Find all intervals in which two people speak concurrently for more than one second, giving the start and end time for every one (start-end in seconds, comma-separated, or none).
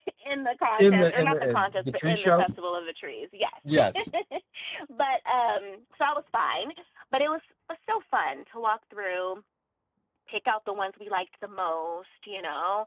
0.8-2.5